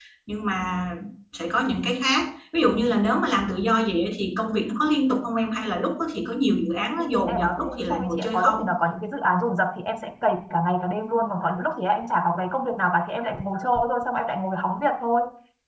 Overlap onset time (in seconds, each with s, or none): 7.0 s